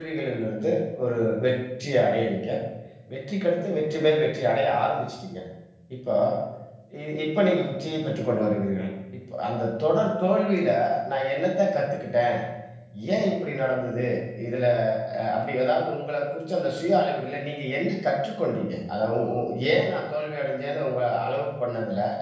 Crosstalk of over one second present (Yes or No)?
No